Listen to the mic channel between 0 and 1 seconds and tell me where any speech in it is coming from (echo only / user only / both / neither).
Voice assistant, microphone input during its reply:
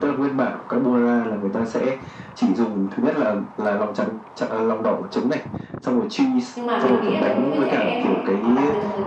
echo only